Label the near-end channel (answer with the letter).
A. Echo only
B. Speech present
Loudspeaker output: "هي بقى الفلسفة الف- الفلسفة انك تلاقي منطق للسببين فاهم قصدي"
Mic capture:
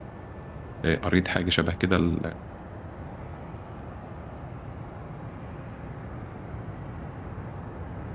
B